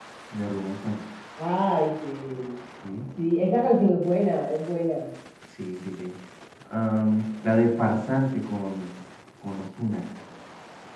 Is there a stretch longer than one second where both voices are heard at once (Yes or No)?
No